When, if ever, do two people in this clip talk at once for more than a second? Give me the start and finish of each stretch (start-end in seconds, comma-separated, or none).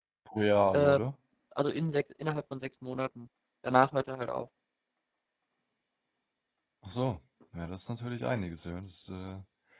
none